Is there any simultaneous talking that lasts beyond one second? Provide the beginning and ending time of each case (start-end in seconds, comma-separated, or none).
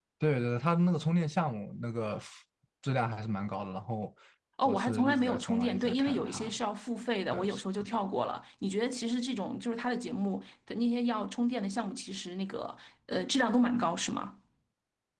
4.7-6.5